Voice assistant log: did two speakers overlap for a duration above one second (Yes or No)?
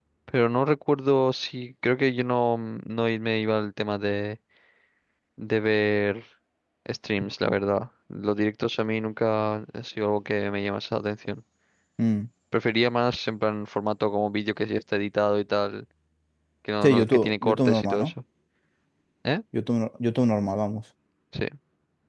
Yes